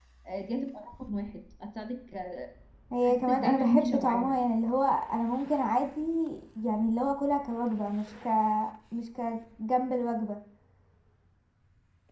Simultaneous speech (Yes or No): Yes